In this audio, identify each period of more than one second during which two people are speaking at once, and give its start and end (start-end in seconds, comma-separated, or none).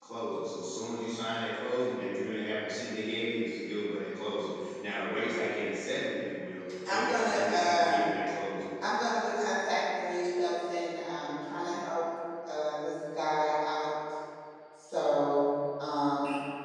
6.9-8.1